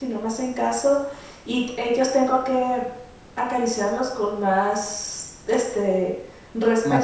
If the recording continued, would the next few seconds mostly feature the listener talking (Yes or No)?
No